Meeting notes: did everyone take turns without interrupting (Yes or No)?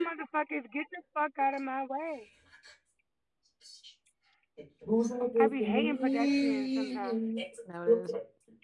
No